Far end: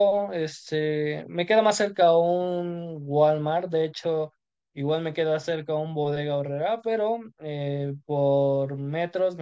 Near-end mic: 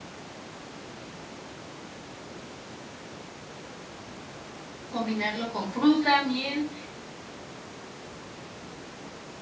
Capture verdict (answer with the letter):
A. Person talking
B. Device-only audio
A